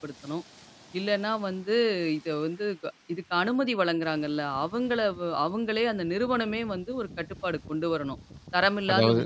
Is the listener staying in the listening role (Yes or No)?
Yes